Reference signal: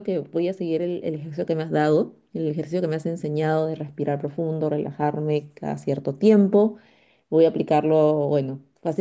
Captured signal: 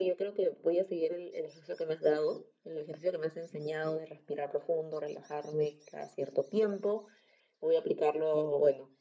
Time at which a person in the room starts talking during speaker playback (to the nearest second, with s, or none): none